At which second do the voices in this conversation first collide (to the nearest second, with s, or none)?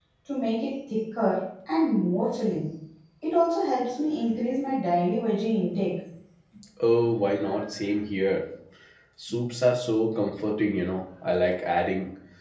none